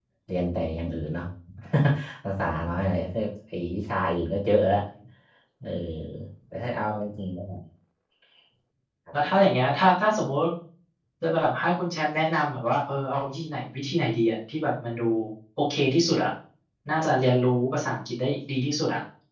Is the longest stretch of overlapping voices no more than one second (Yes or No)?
Yes